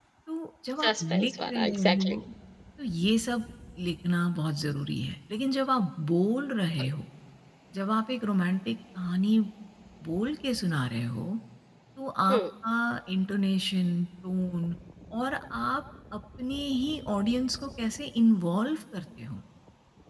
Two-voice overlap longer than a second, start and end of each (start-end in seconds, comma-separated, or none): 0.8-2.2